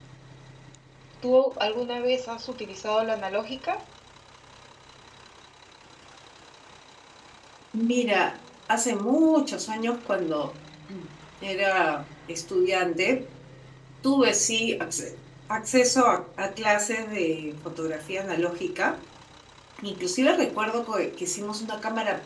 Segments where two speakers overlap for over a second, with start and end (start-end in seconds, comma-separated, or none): none